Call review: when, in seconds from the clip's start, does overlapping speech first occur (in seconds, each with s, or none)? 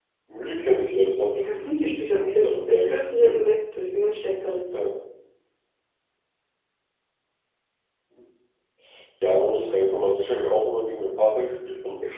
1.4 s